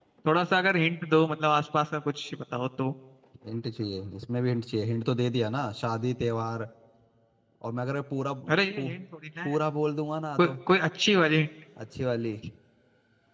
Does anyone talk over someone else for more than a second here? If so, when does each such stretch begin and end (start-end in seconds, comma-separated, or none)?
none